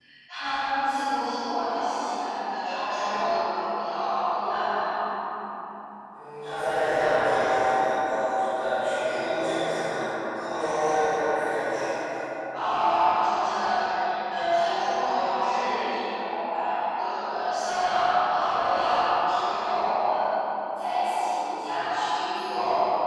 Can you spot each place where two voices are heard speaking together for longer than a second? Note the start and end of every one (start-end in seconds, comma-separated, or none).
none